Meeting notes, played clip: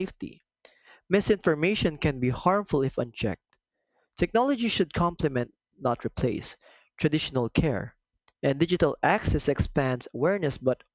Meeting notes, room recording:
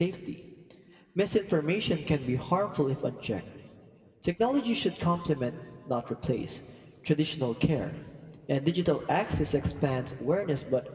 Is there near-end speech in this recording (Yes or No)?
No